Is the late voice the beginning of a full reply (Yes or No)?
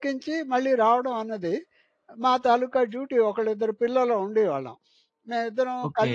Yes